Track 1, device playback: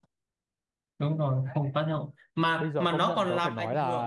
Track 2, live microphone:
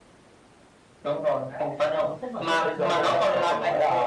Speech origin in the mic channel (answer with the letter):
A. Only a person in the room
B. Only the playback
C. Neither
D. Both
D